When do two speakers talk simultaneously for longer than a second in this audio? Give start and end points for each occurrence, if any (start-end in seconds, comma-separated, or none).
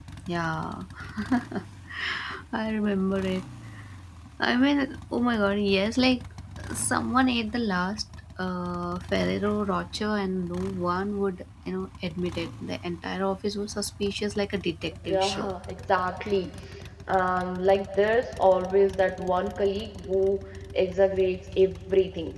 none